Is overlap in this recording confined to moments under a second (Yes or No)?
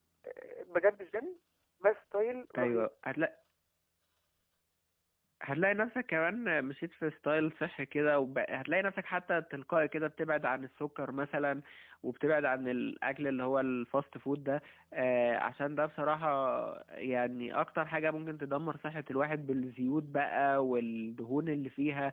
Yes